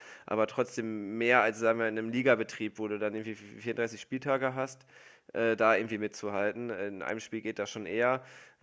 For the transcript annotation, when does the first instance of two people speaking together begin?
none

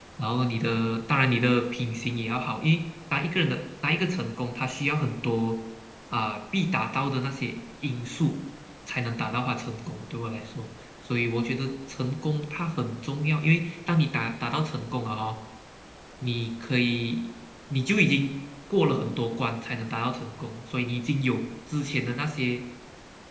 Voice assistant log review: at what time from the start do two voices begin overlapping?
none

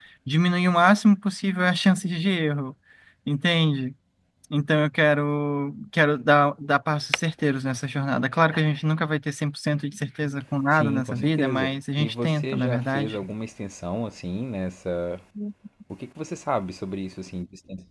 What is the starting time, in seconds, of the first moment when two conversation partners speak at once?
10.7 s

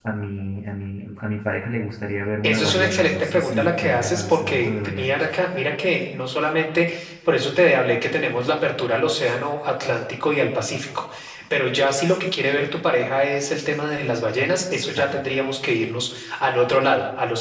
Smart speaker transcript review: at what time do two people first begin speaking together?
2.4 s

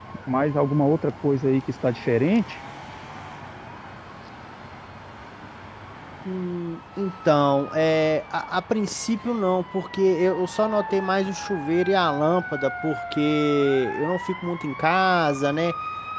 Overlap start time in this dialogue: none

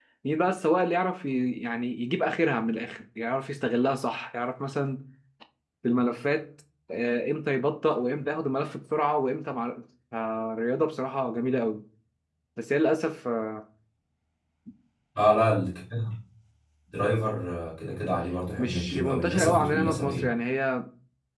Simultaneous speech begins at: 18.6 s

